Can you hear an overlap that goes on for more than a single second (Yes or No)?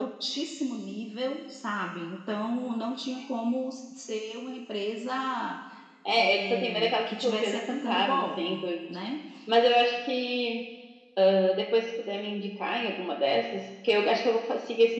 Yes